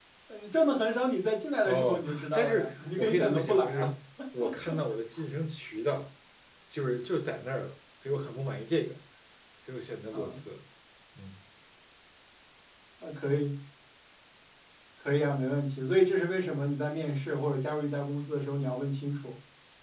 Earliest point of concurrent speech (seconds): 2 s

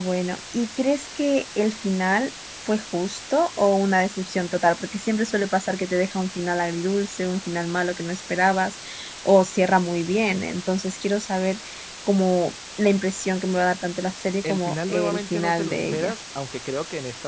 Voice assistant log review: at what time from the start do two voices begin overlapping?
14 s

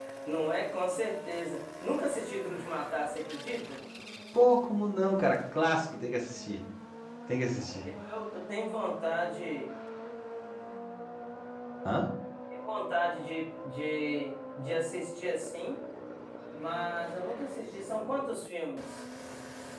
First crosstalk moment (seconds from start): none

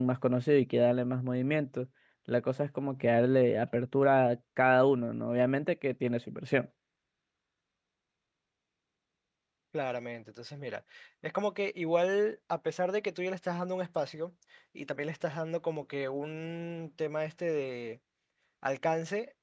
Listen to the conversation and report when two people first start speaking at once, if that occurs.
none

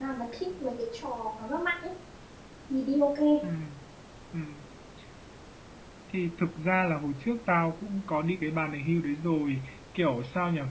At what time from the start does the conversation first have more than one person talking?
none

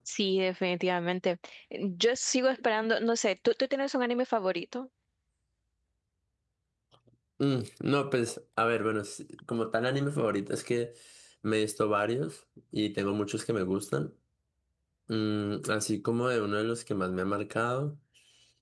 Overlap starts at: none

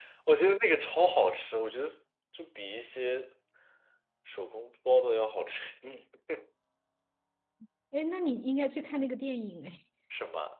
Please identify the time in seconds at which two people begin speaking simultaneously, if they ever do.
none

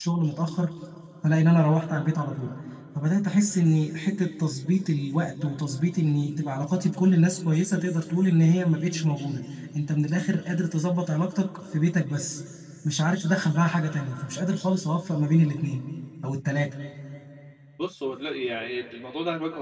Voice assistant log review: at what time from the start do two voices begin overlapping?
none

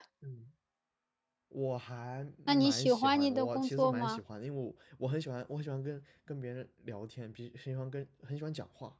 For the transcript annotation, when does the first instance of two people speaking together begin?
2 s

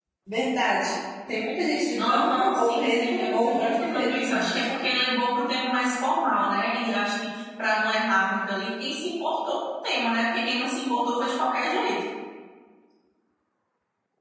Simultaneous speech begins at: 2 s

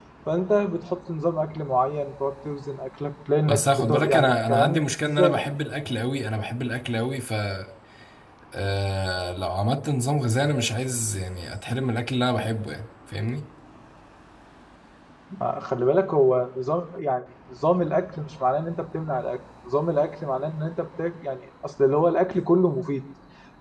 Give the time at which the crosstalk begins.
3 s

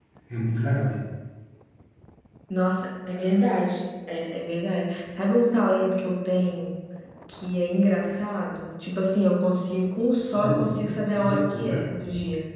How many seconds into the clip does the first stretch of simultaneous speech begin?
10 s

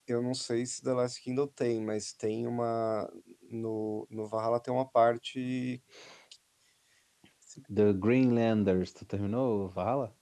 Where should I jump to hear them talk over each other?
none

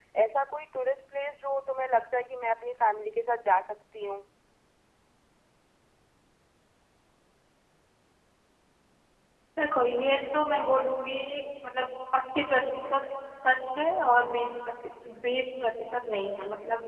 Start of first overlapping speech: none

